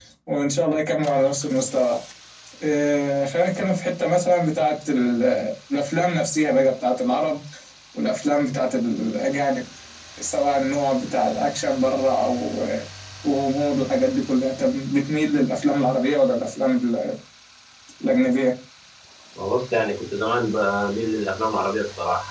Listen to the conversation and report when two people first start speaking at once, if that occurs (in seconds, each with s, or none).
none